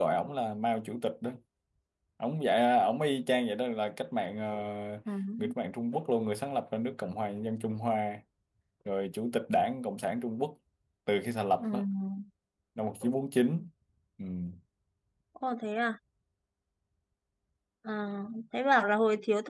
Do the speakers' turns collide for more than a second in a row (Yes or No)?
No